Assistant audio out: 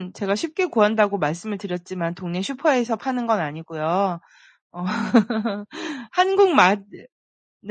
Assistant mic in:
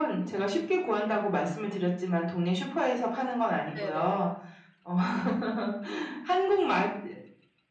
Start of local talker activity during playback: 3.7 s

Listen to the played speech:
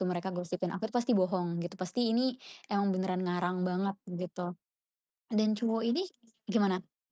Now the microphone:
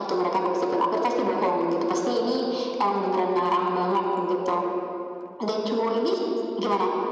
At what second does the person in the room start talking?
none

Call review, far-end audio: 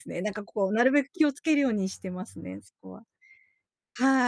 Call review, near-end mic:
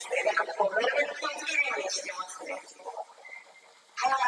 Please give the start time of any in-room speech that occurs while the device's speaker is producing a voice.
none

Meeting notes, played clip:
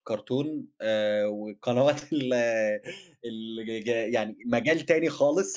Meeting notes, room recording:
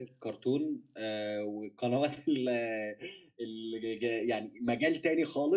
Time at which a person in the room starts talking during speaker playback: none

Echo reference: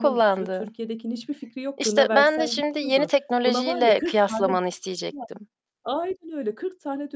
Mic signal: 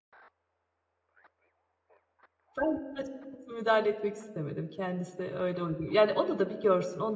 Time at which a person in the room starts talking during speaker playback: 2.6 s

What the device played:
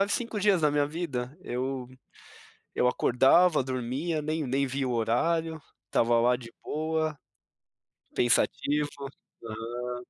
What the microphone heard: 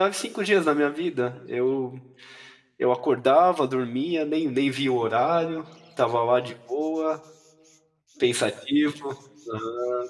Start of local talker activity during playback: none

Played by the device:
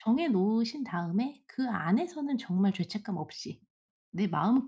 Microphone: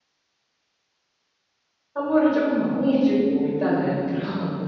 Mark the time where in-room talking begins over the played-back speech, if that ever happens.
1.9 s

